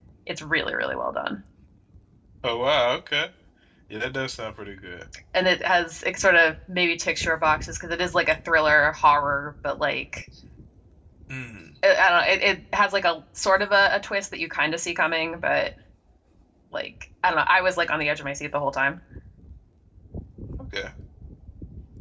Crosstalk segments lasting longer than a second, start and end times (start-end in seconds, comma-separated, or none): none